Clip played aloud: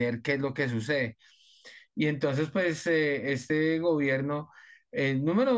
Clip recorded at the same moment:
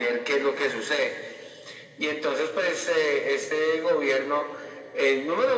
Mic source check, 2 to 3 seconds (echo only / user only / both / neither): echo only